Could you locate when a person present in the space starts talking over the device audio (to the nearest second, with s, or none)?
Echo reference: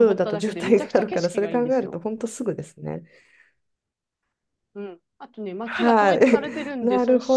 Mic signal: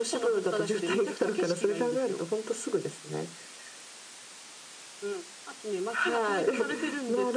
none